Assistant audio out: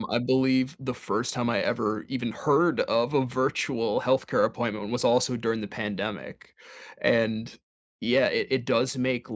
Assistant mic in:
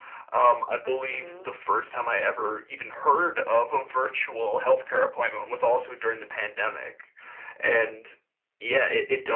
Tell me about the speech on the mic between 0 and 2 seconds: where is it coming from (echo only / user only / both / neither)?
both